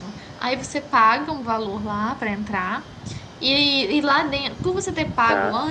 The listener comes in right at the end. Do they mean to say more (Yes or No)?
No